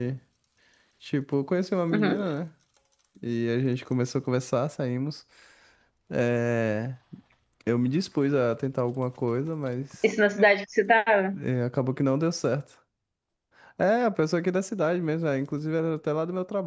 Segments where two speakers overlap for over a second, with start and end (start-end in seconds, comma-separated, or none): none